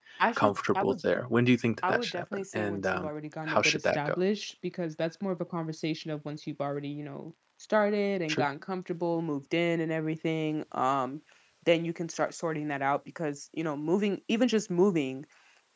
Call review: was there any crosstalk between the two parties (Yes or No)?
Yes